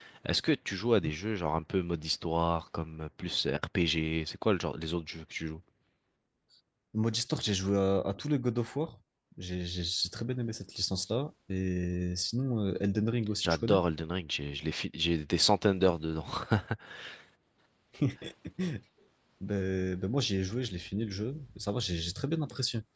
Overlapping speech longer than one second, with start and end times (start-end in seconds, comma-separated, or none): none